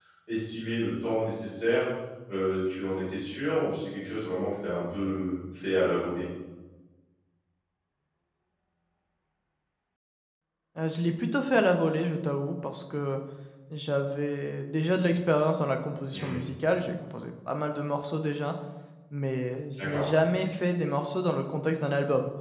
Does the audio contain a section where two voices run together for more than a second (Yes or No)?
No